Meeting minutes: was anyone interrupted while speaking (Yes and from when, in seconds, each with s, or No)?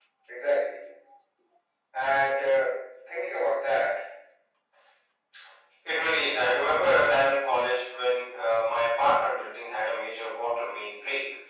No